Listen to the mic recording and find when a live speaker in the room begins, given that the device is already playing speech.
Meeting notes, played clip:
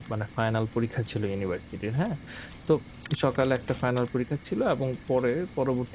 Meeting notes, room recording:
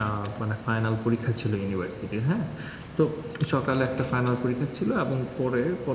none

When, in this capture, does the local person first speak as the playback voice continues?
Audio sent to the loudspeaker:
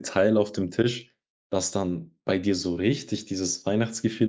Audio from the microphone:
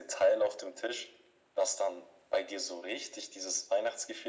none

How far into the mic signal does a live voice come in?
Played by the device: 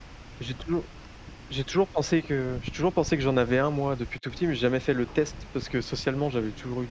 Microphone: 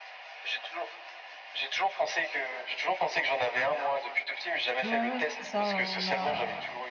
5 s

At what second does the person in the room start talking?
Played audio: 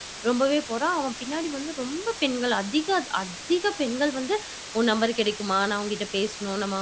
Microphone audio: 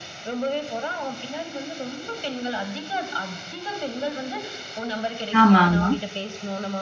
5 s

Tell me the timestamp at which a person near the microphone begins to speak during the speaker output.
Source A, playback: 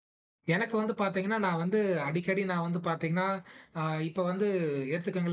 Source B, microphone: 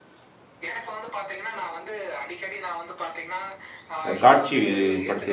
4 s

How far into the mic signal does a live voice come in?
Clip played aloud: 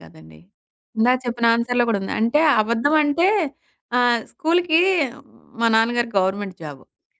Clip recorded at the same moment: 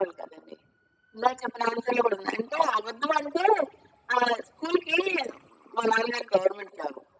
none

